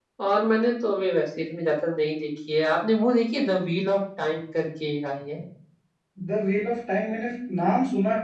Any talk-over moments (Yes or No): No